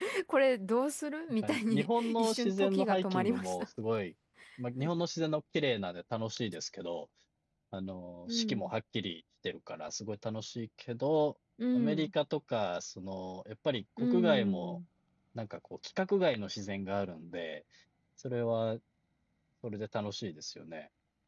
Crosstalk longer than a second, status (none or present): present